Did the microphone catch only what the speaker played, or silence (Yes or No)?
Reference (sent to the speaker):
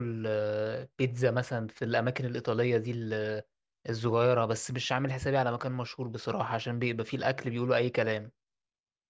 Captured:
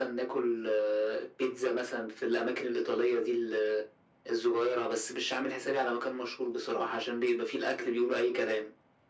Yes